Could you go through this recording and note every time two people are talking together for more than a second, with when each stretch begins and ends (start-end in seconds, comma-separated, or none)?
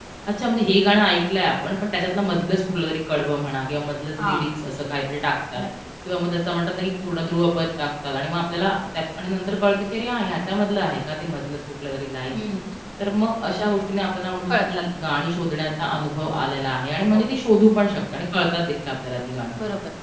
none